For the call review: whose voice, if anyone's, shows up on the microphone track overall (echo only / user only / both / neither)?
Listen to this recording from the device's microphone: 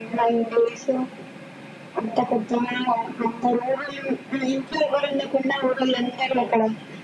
echo only